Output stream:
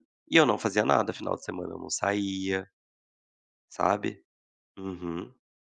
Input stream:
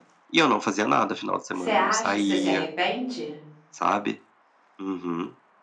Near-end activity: present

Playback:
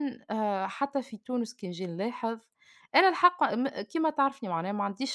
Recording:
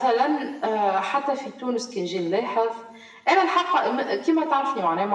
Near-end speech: none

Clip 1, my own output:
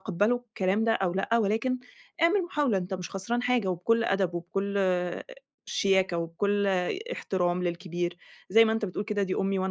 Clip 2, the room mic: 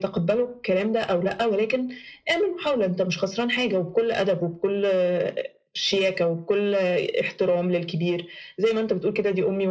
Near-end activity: none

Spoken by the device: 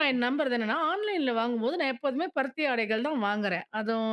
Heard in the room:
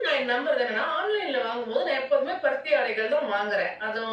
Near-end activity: none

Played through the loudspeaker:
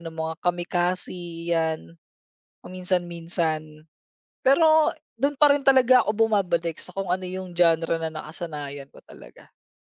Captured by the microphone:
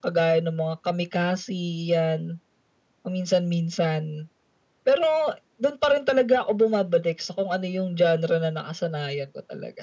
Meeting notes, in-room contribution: none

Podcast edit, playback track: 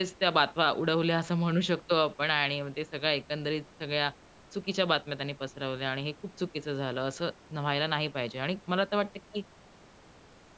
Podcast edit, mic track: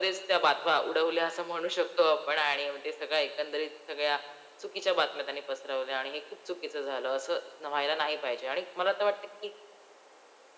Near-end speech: none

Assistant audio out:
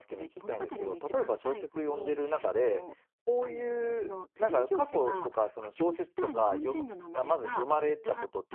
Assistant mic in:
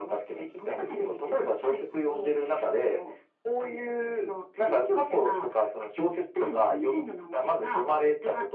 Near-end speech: none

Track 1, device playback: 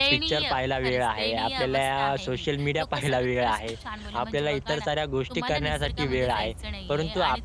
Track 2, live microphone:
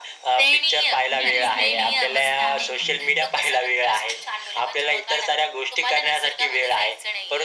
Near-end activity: present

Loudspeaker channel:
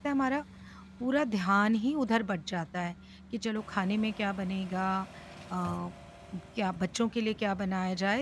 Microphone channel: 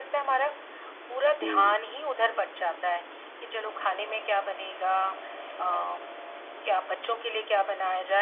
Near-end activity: present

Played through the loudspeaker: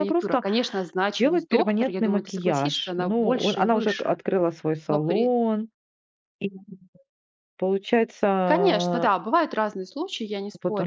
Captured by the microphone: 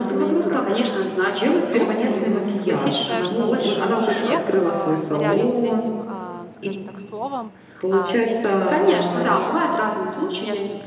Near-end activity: present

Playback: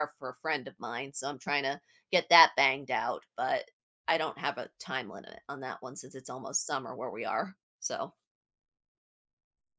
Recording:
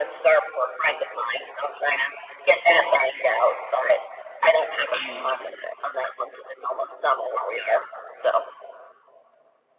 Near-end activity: present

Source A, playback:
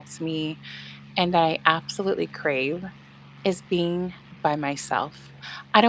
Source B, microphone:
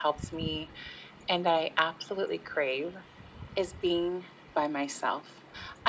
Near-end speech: none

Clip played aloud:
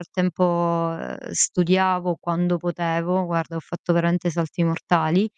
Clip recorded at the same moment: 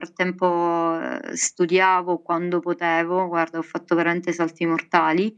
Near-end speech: none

